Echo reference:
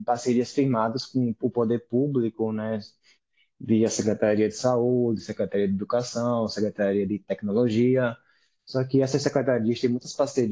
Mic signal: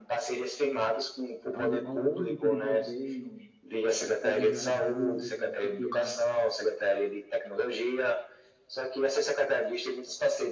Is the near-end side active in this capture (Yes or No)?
Yes